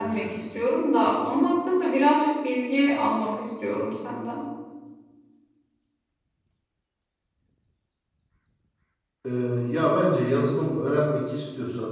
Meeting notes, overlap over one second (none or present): none